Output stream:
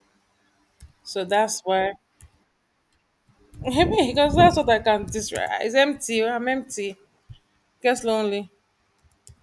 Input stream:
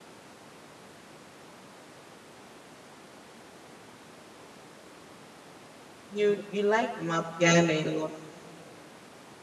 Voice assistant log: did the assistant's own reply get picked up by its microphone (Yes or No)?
No